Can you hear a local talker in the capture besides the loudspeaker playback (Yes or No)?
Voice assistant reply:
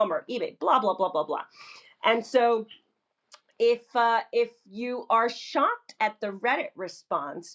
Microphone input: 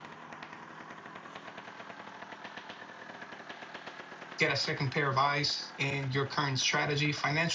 Yes